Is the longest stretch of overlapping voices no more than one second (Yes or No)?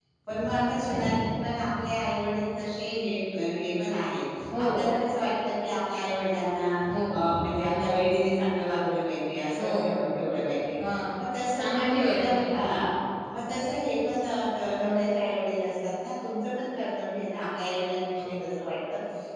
No